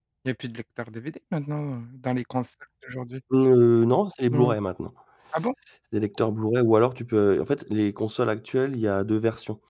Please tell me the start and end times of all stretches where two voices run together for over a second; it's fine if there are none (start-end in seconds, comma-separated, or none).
none